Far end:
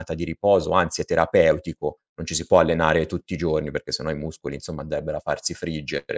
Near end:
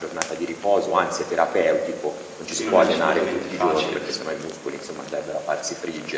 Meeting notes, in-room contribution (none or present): present